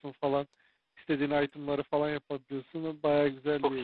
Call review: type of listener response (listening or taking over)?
taking over